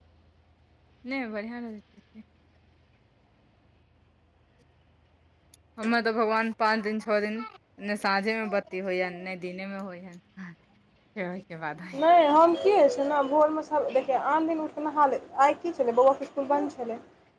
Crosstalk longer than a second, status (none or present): none